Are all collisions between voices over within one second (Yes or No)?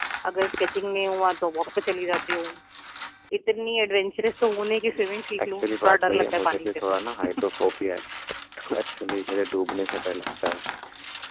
No